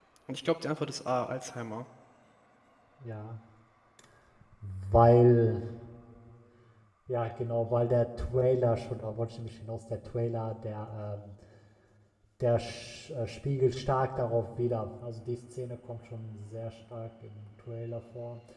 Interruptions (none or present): none